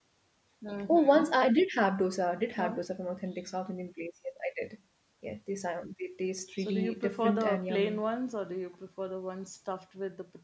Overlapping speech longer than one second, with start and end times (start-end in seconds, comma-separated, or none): 6.6-8.0